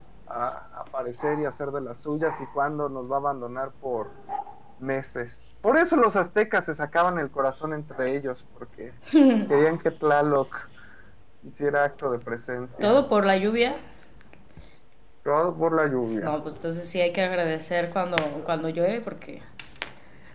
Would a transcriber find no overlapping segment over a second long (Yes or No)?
Yes